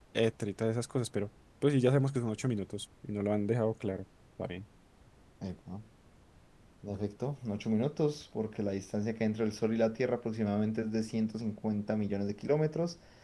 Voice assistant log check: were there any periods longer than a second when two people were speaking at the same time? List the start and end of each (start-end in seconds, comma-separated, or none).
none